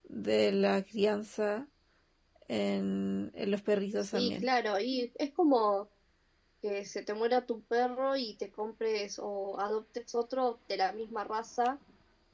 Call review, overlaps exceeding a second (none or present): none